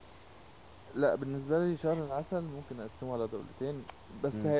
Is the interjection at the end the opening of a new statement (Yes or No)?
No